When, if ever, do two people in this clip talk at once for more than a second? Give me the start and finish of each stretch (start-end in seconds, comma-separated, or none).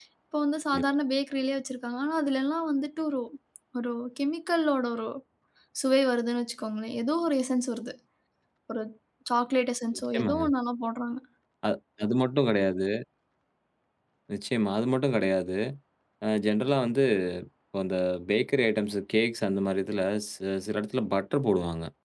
none